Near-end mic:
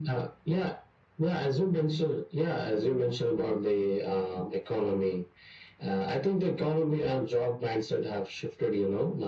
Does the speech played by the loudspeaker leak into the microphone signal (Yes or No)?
Yes